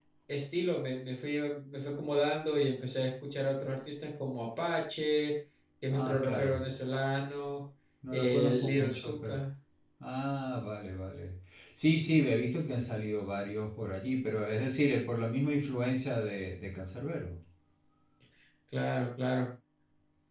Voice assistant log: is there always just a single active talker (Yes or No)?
No